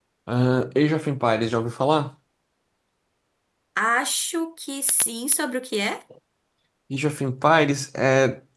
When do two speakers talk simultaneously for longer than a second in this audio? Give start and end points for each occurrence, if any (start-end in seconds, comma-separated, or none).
none